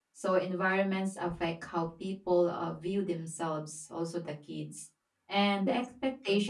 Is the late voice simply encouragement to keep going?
Yes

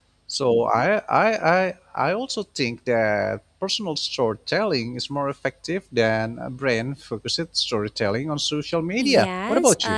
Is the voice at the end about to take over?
Yes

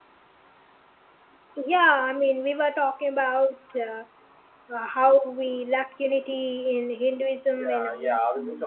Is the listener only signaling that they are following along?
No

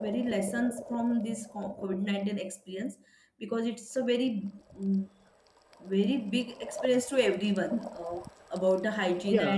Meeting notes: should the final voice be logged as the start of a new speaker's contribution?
Yes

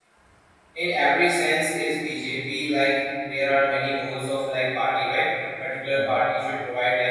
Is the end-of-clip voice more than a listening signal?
No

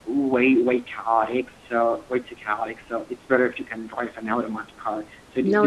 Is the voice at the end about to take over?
No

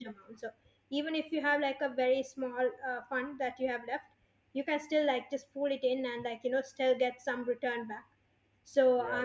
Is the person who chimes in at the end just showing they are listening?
Yes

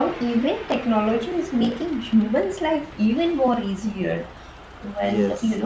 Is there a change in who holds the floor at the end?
No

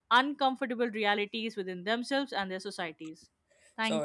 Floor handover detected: Yes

